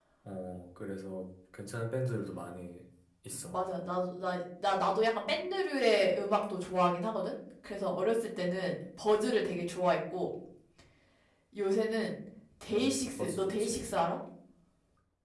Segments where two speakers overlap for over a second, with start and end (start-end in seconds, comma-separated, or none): 12.7-13.9